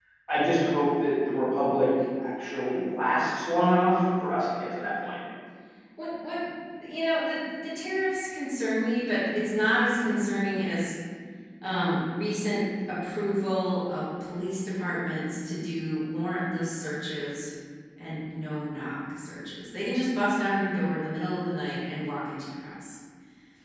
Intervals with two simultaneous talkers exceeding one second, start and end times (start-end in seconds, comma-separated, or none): none